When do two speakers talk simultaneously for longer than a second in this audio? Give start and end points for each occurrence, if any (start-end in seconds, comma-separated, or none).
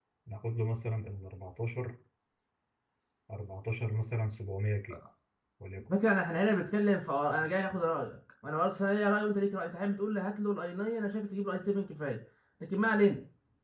none